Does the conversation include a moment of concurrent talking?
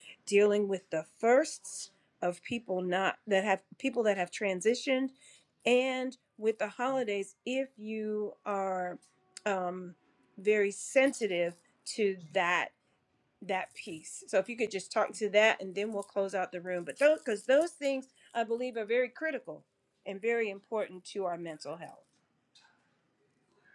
No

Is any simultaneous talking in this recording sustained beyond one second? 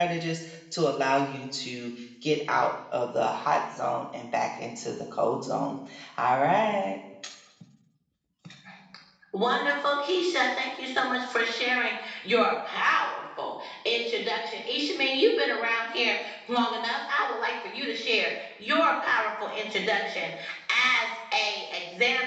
No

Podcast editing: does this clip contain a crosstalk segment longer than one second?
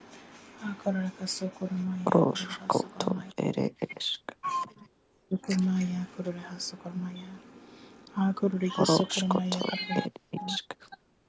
Yes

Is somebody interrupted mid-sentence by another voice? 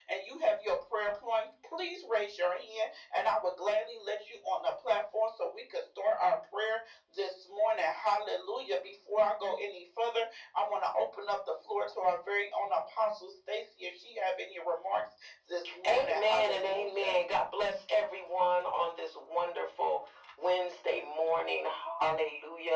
Yes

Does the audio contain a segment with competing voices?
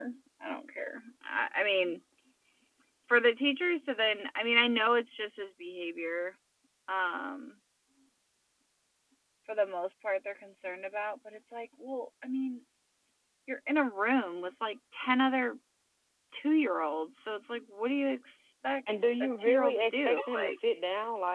Yes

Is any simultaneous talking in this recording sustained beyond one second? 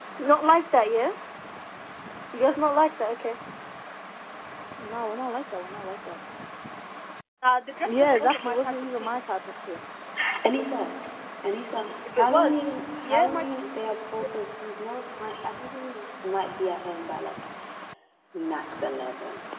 Yes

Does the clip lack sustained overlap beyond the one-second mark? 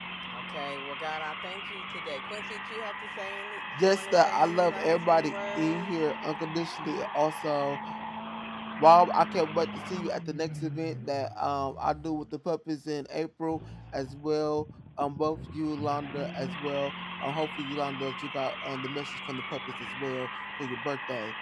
No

